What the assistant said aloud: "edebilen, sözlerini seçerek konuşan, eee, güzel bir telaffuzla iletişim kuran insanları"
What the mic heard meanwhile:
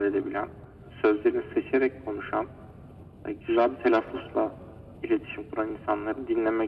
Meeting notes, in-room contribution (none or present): none